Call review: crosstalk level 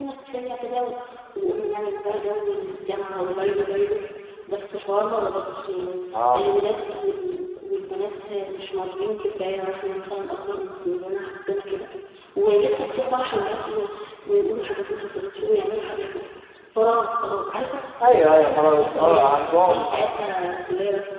present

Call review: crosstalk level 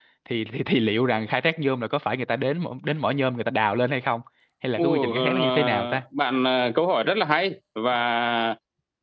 present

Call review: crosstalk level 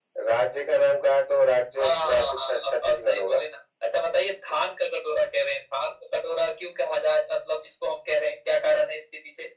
present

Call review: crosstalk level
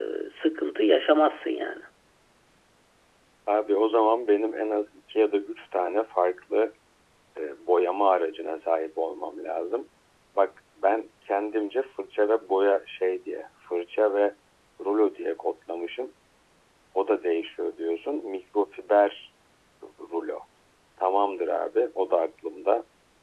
none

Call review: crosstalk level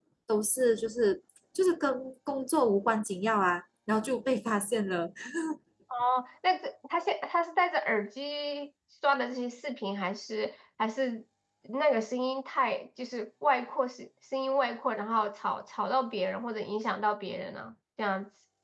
none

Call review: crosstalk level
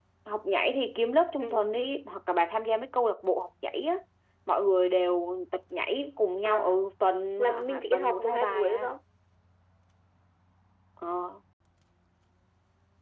present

